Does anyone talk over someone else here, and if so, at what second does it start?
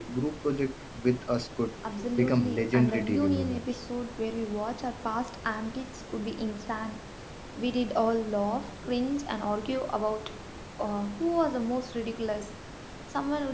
2.2 s

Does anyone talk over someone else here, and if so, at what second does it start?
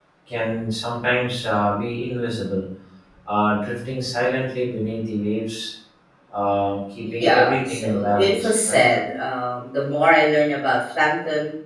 7.0 s

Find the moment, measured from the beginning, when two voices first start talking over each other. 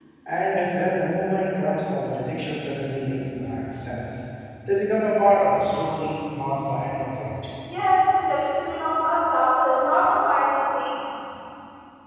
none

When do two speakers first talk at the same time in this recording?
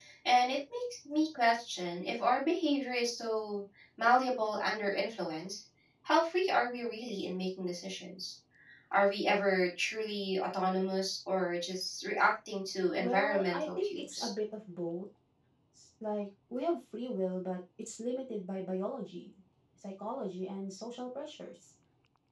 13.0 s

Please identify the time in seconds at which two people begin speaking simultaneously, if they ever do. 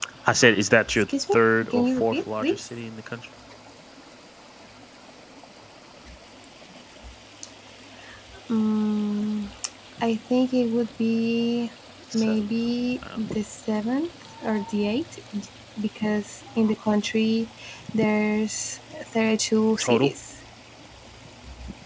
0.9 s

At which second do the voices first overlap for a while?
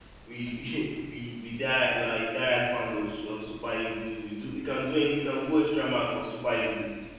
none

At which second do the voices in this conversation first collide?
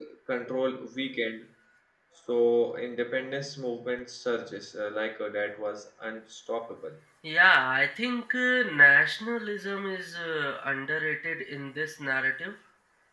none

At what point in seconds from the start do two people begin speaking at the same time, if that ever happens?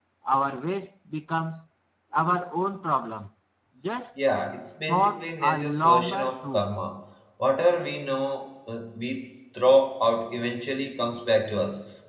4.9 s

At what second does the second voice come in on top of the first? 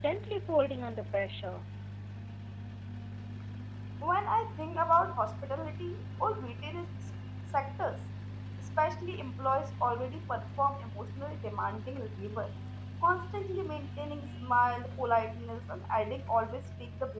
none

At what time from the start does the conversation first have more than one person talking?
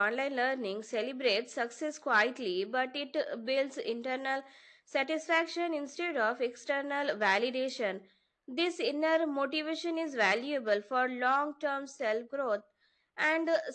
none

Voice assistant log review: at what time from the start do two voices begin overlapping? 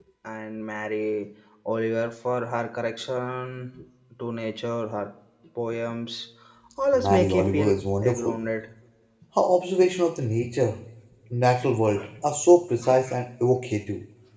6.9 s

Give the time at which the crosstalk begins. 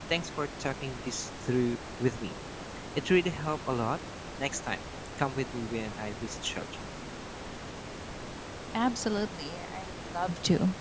none

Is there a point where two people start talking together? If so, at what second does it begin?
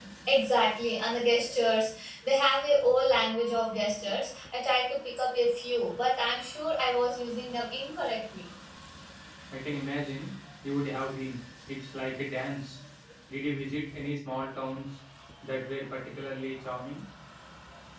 none

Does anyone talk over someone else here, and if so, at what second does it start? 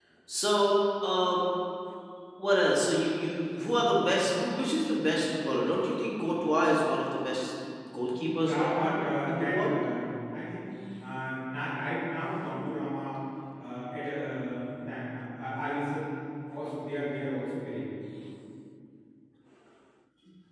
8.1 s

